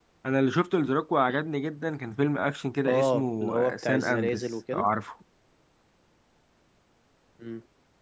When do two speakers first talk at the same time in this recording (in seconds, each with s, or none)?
2.8 s